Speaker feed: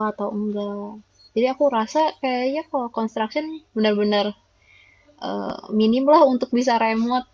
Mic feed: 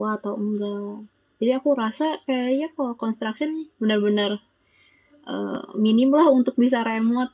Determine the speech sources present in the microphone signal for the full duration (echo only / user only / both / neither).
echo only